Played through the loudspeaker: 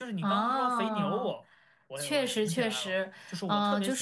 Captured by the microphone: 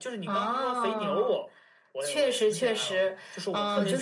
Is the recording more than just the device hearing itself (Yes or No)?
Yes